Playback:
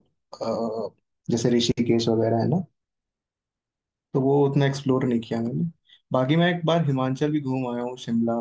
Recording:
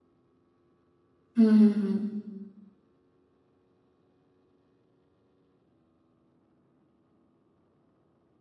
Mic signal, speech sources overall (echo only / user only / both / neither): user only